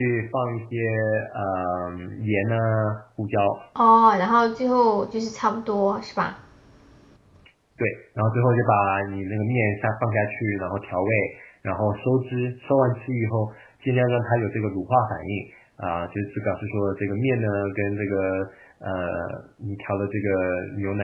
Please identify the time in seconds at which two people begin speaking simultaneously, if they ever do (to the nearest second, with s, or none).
none